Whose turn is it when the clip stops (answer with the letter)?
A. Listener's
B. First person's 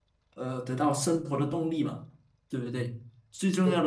B